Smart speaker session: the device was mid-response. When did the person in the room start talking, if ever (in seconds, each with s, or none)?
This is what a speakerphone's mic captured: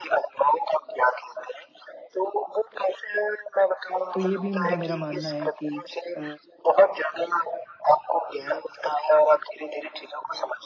4.1 s